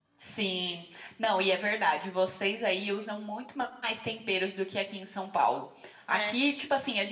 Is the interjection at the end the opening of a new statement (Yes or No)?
No